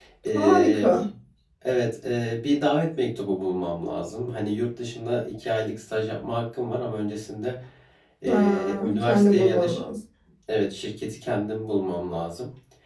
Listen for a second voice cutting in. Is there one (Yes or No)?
Yes